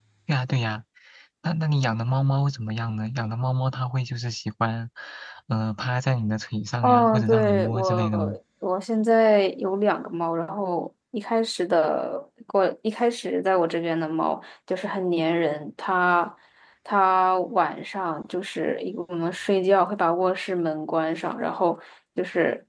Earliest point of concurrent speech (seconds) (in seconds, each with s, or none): 6.8 s